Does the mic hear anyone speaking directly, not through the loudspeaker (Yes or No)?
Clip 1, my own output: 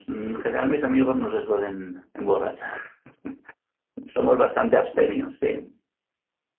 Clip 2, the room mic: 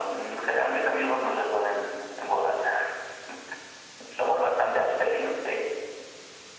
No